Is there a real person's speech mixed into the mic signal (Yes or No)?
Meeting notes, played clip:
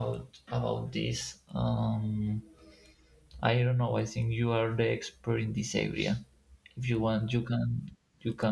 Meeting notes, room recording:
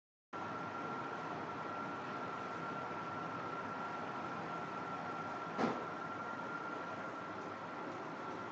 No